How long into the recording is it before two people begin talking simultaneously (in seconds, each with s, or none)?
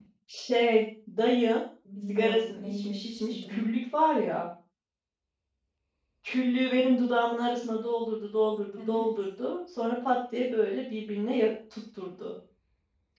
2.1 s